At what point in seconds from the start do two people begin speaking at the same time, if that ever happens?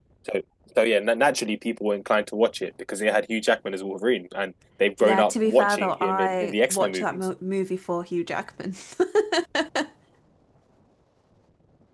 5.0 s

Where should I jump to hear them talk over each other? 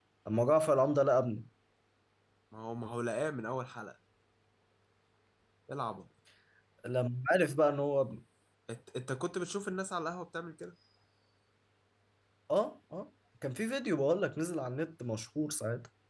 none

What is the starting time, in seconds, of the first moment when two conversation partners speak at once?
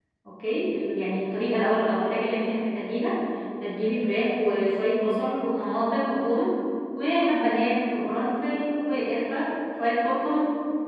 none

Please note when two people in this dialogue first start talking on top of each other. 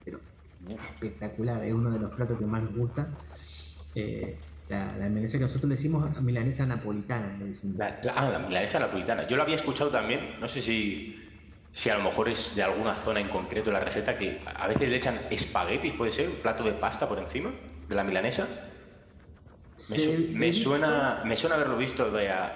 19.9 s

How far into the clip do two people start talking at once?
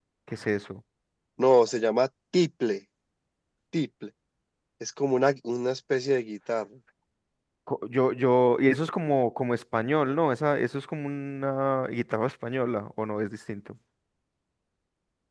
none

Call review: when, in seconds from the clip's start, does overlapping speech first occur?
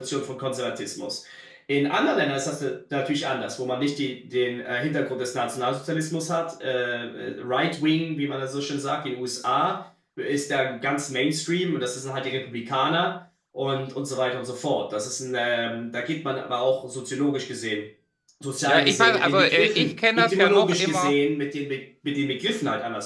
18.6 s

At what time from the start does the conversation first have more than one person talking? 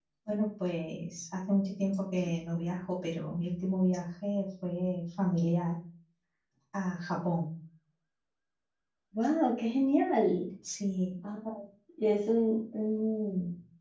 none

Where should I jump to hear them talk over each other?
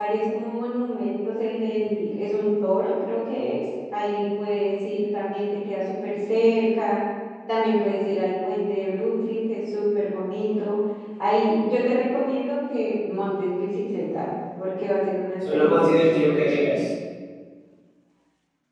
15.4 s

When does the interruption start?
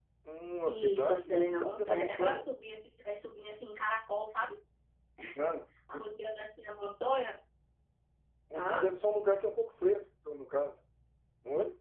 0.6 s

